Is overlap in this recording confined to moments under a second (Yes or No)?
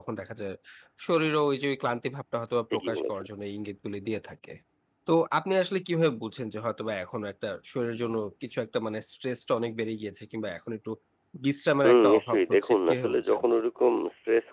No